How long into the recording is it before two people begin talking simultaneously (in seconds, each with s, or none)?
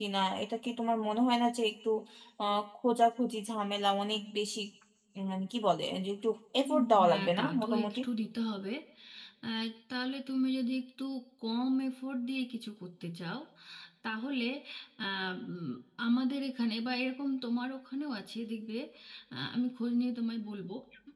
6.6 s